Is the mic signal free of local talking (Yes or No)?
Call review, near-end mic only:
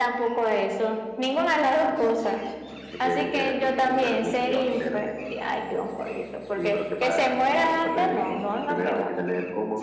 Yes